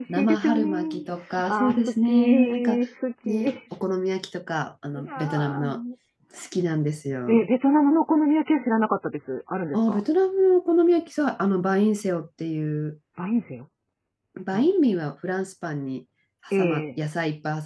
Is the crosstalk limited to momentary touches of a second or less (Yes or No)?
No